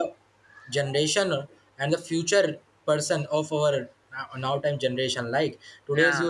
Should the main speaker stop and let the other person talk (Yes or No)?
No